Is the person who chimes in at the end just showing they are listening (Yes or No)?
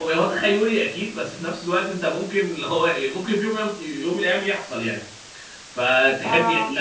Yes